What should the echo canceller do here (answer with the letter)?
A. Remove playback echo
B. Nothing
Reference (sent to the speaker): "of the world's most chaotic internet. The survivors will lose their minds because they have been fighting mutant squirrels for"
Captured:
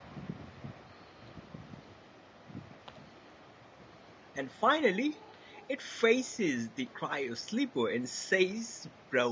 B